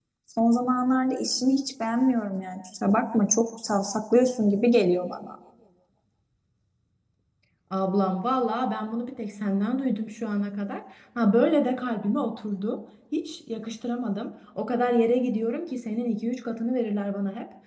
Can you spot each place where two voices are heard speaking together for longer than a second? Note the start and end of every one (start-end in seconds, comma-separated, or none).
none